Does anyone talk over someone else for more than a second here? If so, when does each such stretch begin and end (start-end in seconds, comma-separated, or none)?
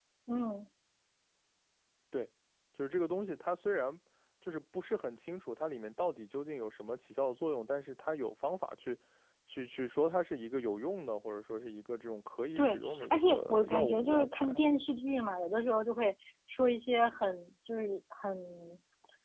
12.6-14.7